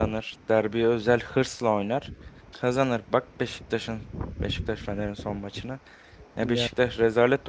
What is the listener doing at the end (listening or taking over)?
listening